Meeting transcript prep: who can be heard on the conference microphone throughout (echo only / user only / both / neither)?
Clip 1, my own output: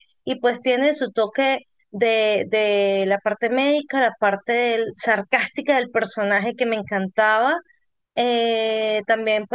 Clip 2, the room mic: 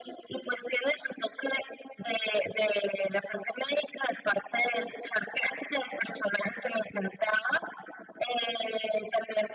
echo only